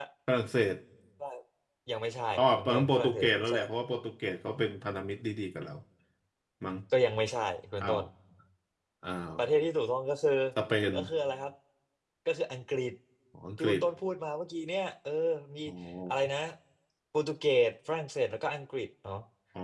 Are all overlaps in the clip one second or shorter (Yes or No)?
No